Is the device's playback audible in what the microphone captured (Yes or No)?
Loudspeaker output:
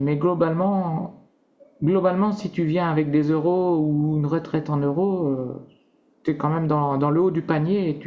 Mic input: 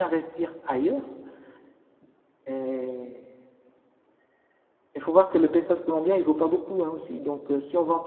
No